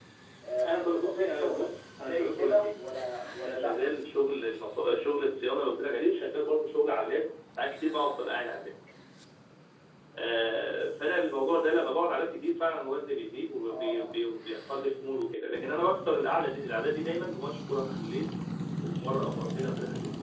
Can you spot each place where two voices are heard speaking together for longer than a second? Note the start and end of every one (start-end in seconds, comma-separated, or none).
0.7-2.8